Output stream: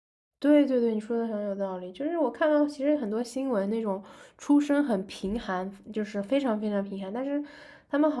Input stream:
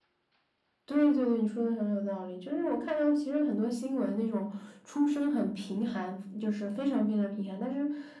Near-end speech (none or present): none